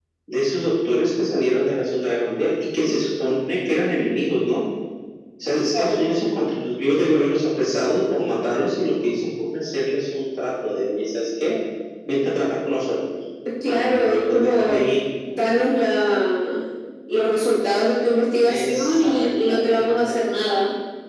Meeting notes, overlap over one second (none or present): present